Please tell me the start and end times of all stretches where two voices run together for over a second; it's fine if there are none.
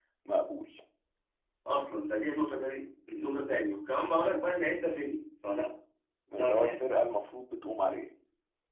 none

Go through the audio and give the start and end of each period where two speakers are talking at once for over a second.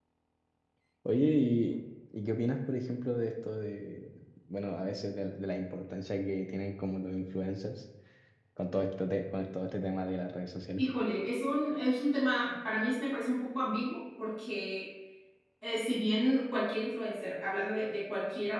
none

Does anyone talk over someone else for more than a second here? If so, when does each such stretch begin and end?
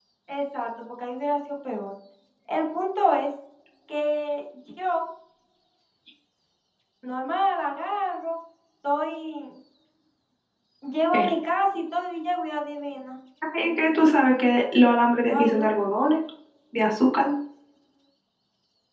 none

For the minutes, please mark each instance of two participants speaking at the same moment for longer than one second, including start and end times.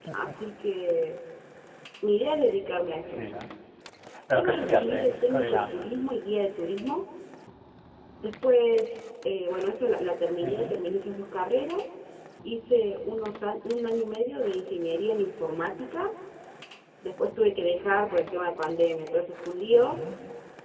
4.3-5.7

